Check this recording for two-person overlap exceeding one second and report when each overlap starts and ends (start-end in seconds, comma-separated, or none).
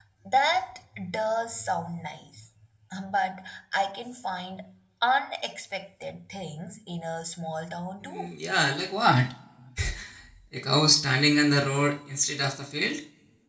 none